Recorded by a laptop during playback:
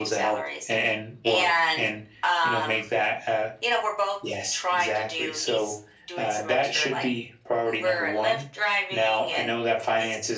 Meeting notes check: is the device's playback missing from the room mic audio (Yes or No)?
No